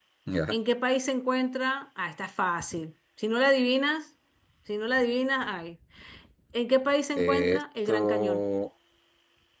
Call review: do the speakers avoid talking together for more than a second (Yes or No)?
No